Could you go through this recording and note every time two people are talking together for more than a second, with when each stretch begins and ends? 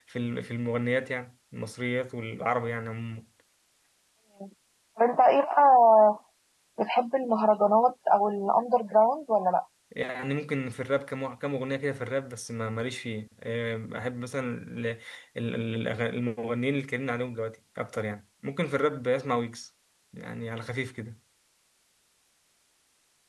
none

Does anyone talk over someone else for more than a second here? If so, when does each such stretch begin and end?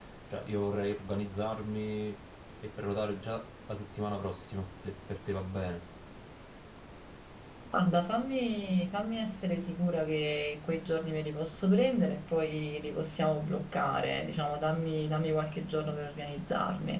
none

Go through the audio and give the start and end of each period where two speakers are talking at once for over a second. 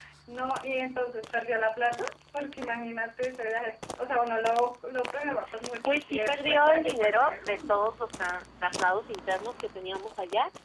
5.8-7.8

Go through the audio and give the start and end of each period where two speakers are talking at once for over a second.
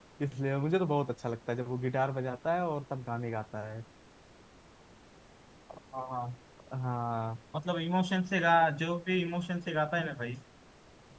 none

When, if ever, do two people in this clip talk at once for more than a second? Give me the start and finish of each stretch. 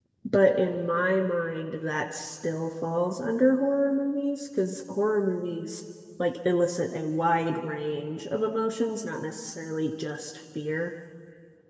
none

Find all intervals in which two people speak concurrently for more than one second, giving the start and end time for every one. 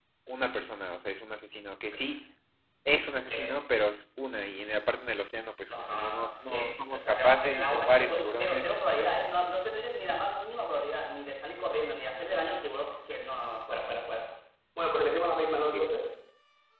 5.7-9.1

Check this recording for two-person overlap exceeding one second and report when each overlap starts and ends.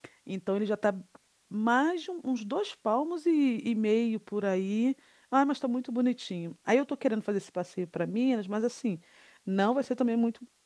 none

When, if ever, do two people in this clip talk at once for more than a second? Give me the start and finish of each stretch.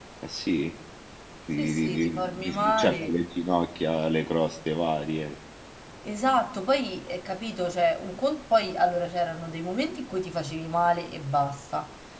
1.6-3.1

